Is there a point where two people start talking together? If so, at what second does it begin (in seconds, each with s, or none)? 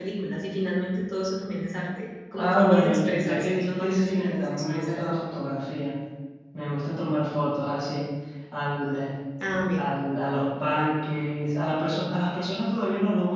2.4 s